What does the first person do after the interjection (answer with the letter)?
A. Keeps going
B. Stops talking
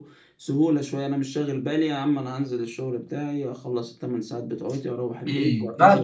B